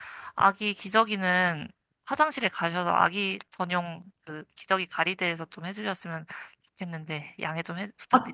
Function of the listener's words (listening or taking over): taking over